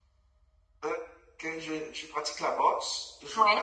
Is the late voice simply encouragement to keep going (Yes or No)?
Yes